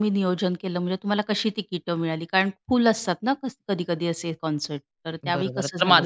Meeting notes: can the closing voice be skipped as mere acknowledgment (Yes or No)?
No